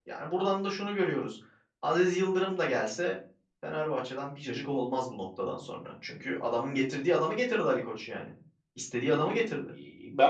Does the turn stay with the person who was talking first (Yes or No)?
No